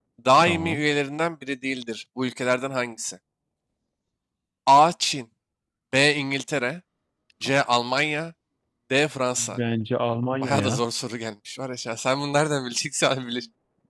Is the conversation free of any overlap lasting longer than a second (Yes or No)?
Yes